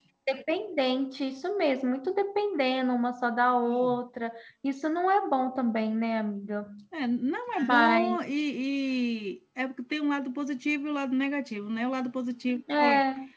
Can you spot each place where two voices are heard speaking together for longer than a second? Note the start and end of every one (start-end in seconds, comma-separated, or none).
none